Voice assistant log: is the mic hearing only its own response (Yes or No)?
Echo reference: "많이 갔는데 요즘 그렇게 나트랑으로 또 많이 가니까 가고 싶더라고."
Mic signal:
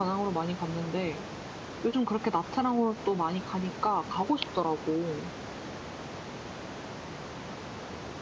Yes